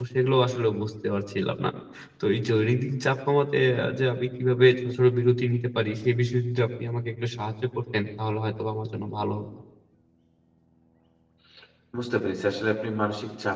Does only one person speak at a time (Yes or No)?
Yes